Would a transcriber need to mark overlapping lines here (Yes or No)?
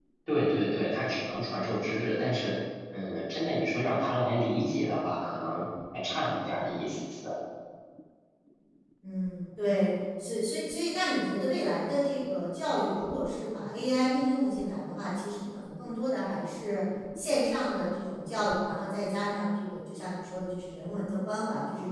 No